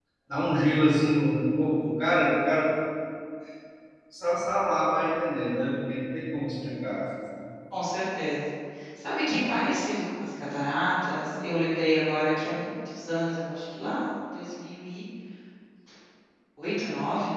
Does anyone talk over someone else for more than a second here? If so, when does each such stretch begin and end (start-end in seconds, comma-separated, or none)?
none